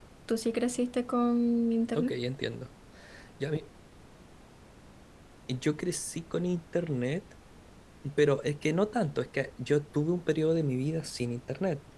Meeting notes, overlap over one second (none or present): none